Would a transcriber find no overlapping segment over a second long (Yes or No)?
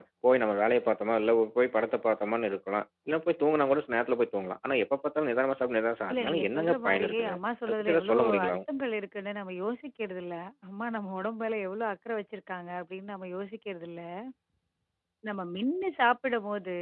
No